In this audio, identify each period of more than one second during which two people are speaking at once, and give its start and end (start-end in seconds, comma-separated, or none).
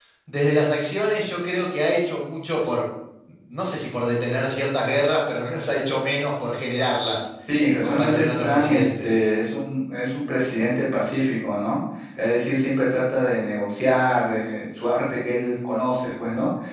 7.7-9.2